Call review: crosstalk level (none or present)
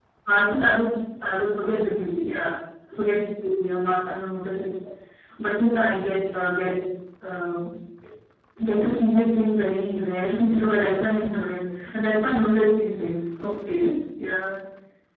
none